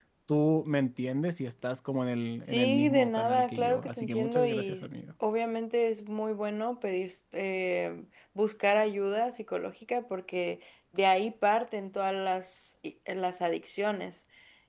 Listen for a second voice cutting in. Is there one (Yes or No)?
Yes